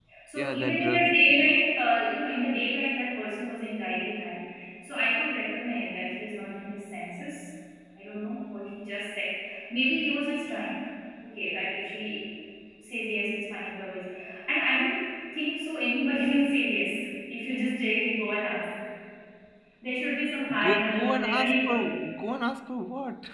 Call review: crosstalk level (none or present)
present